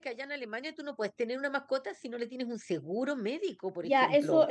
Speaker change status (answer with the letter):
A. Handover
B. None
A